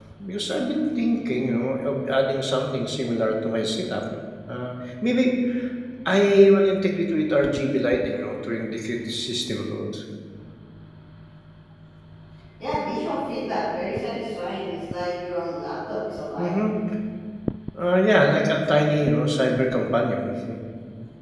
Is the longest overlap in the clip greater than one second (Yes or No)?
No